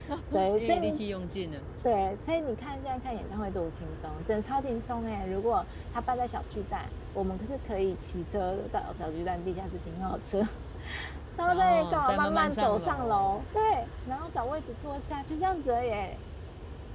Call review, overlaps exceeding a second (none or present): present